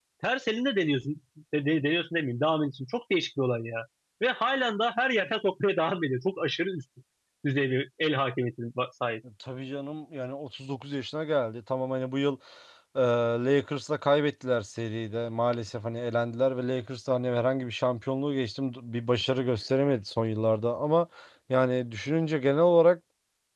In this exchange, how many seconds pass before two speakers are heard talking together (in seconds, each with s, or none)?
none